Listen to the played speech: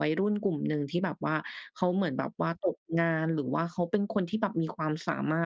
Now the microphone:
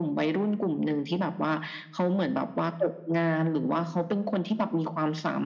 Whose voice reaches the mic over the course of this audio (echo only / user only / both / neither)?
echo only